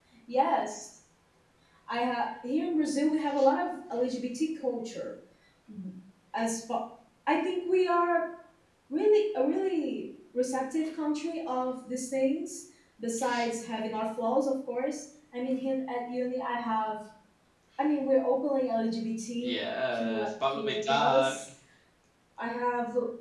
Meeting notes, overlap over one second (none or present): present